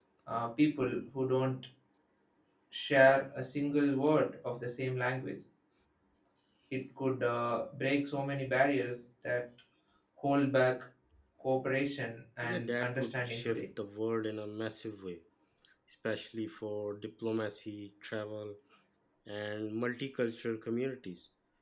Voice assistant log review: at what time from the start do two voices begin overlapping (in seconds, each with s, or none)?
12.4 s